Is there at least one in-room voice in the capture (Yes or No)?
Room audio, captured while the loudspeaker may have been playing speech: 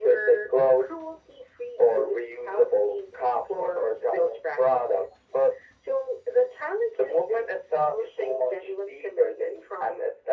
No